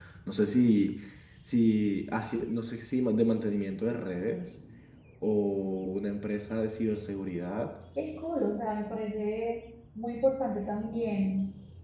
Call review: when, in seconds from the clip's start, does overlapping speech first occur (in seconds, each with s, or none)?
none